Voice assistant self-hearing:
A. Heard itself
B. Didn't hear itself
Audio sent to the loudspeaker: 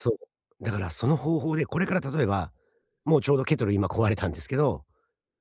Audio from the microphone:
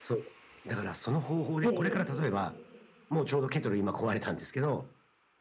A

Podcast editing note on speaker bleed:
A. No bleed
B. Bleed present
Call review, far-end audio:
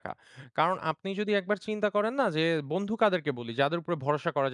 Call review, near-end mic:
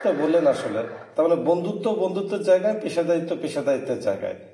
A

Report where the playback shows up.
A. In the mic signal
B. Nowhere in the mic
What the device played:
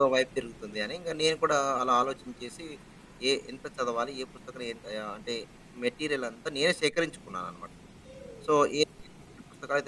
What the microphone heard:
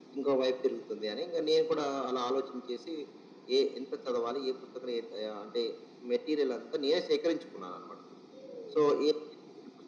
A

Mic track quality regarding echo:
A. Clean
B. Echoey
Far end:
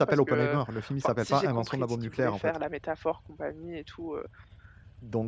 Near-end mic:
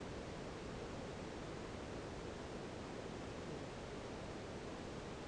A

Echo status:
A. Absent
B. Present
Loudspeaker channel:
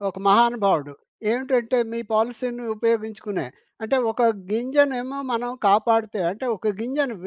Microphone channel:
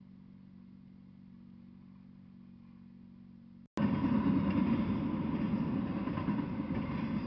A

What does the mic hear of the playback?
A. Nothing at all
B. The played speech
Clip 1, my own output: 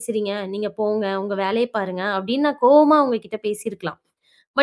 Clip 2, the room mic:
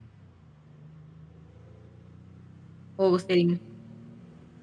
A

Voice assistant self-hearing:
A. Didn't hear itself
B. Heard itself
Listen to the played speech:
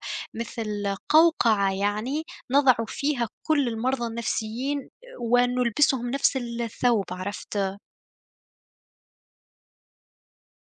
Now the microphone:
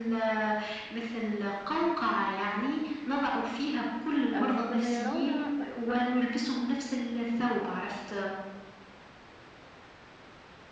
B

